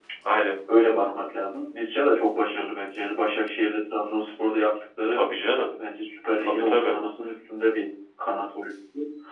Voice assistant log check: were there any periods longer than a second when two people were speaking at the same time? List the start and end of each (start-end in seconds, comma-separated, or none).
none